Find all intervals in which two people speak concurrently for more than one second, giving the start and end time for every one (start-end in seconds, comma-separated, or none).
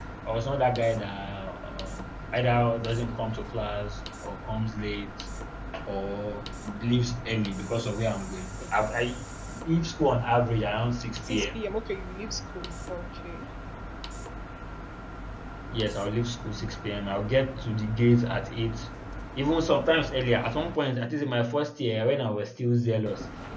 none